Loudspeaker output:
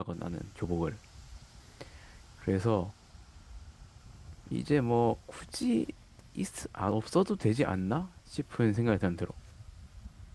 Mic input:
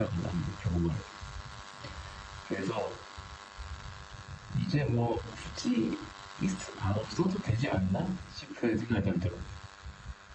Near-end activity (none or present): none